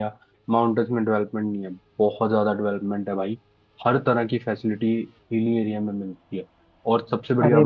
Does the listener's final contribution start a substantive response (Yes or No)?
Yes